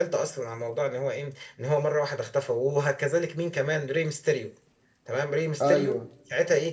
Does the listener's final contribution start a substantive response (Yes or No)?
No